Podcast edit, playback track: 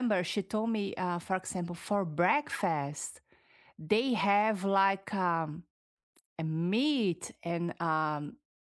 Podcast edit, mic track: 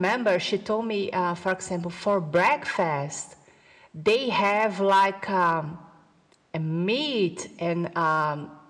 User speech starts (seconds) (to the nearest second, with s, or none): none